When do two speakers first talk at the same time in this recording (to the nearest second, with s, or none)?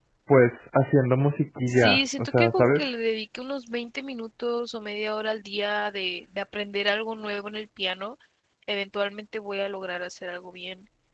2 s